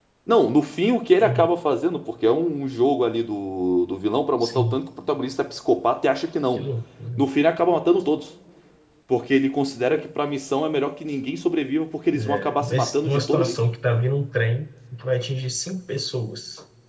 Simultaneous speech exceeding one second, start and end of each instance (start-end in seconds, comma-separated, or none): 12.1-13.6